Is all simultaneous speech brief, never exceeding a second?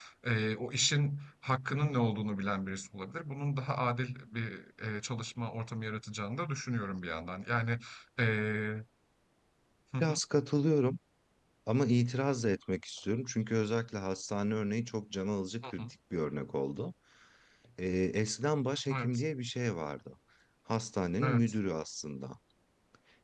Yes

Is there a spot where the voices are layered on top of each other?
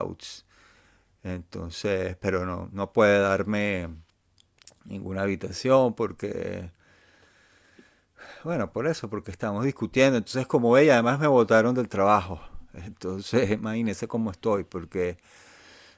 No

